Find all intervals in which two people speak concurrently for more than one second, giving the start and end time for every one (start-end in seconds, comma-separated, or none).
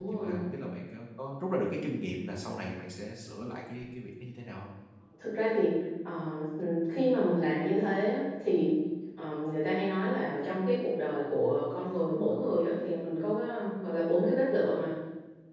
none